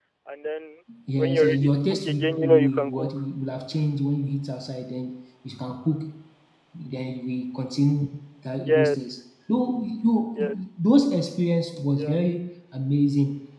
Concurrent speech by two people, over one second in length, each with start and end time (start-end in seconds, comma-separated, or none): 1.2-3.1